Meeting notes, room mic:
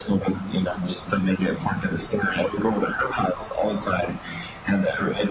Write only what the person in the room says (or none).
none